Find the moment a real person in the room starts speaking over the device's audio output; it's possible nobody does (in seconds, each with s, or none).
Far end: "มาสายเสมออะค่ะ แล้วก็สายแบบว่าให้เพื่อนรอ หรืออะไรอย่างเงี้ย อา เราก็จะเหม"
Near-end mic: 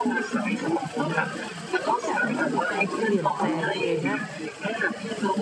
0.4 s